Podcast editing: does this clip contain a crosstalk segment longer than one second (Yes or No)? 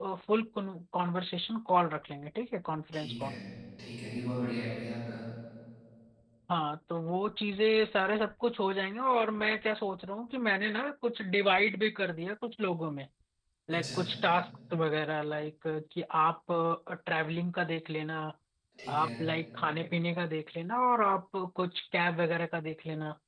No